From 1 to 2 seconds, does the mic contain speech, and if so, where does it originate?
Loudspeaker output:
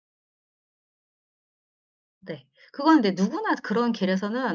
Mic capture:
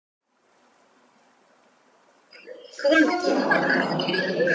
neither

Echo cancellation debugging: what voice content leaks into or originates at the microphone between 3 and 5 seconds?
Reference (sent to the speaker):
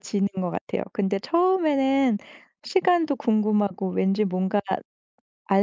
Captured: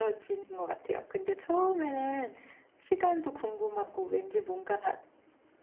echo only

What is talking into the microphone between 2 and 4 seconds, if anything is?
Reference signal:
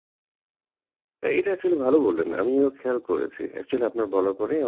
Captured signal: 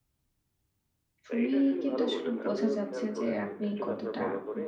both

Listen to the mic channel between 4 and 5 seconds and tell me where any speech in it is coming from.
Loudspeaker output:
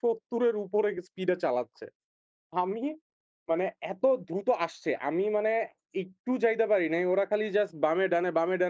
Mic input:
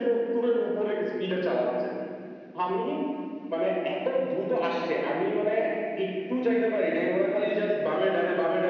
echo only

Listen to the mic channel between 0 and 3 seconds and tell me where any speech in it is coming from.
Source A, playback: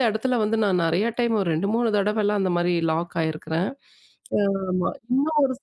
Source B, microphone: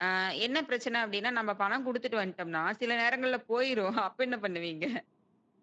user only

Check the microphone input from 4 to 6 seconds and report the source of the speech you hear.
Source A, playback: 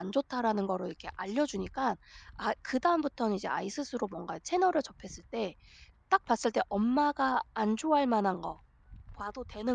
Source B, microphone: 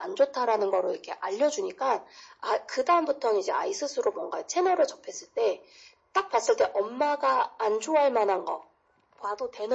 echo only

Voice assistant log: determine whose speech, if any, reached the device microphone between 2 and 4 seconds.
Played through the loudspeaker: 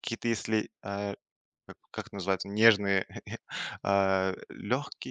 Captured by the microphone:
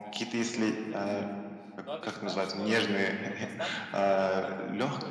both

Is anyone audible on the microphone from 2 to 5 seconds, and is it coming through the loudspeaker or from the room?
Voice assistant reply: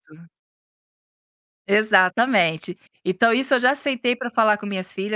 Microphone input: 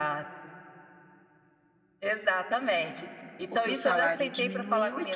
both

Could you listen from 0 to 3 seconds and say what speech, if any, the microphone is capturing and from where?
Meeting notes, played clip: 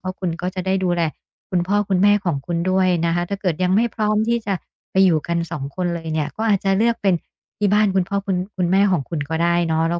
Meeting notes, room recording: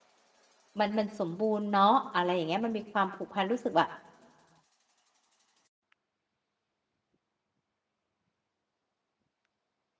user only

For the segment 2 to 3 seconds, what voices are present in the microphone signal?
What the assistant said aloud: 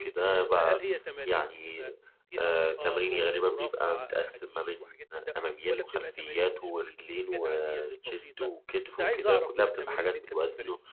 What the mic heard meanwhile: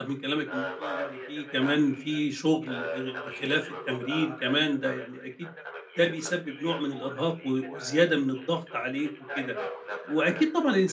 both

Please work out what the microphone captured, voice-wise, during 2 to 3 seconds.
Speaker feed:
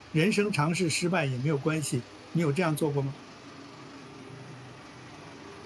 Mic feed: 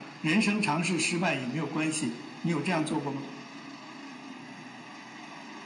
echo only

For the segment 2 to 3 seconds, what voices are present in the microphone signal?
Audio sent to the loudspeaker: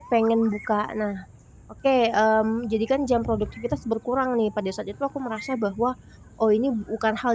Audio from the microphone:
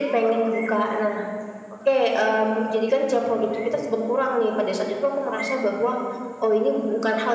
echo only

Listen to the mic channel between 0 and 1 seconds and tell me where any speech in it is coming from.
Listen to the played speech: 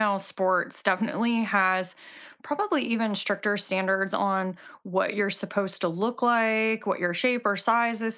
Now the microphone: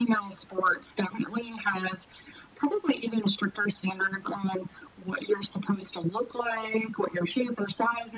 echo only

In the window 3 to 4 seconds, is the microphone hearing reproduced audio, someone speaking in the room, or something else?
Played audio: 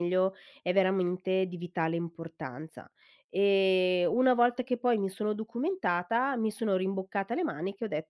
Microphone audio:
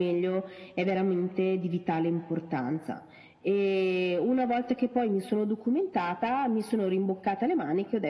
echo only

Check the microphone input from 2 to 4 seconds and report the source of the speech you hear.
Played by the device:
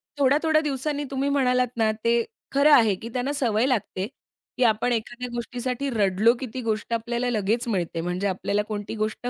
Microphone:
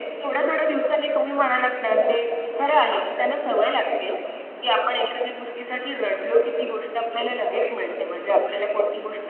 echo only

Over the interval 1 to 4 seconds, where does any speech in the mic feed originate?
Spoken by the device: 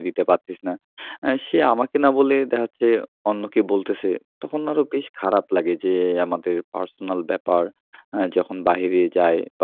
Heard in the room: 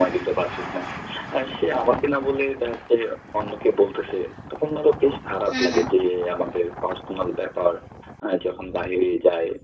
echo only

